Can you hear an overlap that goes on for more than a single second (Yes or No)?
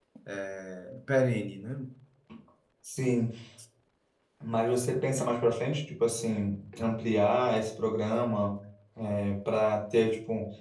No